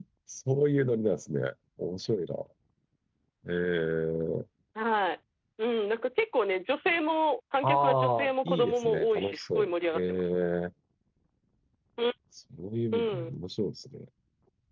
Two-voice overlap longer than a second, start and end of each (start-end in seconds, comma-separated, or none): 7.6-10.2